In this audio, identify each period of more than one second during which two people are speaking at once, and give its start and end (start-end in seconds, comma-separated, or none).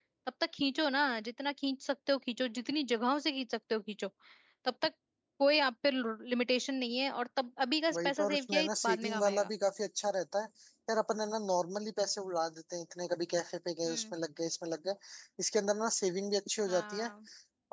7.9-9.5